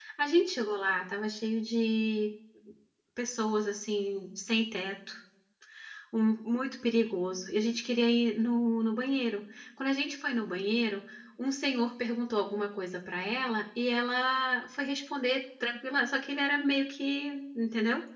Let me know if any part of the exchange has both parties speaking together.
No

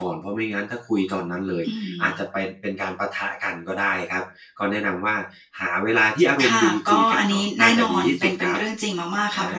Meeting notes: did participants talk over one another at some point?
Yes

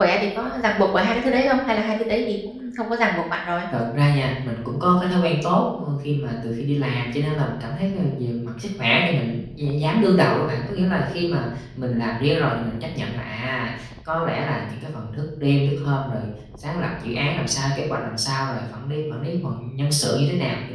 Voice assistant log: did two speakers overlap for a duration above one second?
No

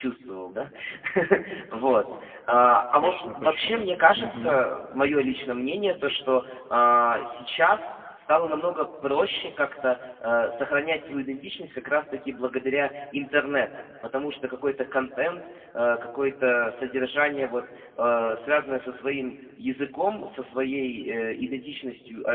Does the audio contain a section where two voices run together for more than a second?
Yes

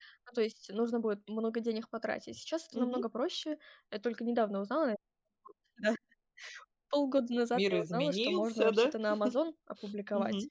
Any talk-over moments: Yes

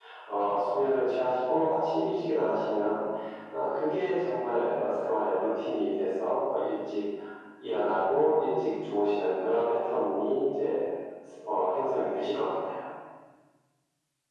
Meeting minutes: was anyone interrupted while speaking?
No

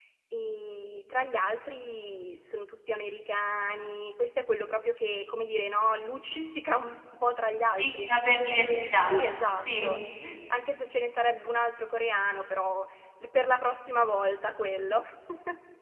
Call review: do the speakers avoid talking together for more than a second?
Yes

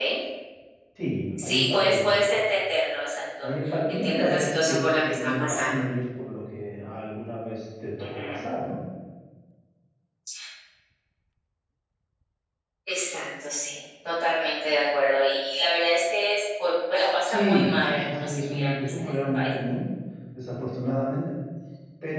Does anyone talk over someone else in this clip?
Yes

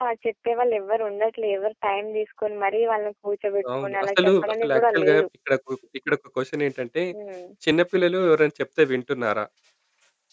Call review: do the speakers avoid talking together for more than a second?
No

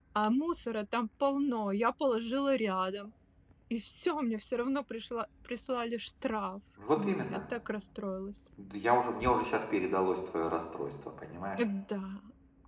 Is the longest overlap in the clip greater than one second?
No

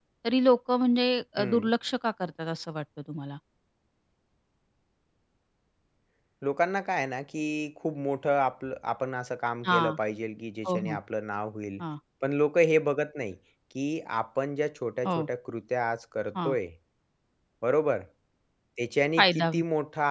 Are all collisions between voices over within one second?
Yes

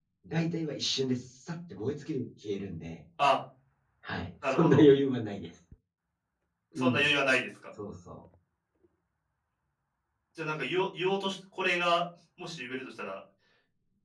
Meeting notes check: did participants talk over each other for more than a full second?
No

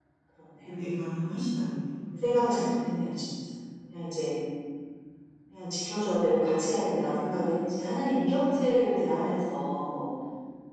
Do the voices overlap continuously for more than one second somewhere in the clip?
No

